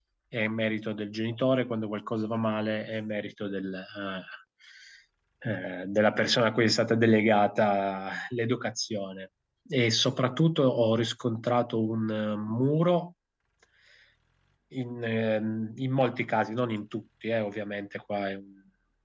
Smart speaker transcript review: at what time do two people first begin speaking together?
none

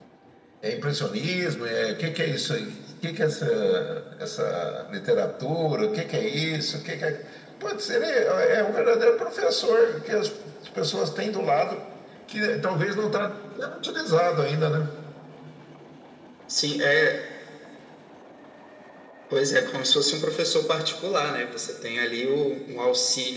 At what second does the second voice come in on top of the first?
none

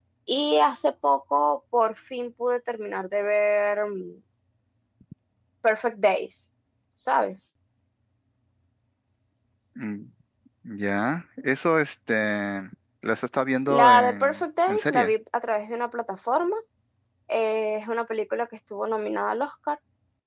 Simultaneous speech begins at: 14 s

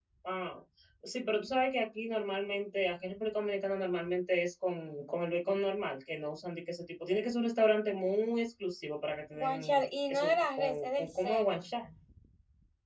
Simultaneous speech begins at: 9 s

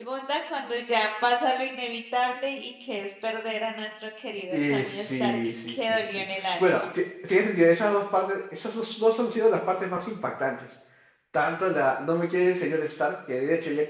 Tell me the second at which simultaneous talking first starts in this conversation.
5 s

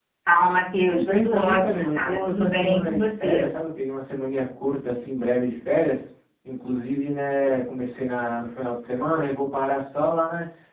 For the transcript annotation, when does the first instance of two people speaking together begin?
1 s

